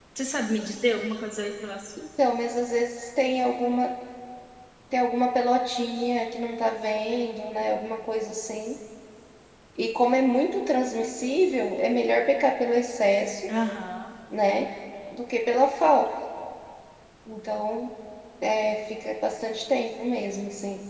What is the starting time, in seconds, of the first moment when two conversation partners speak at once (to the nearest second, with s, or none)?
none